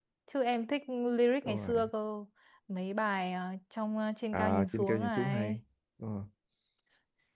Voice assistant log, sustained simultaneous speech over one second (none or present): present